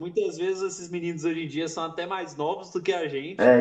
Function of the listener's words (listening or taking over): taking over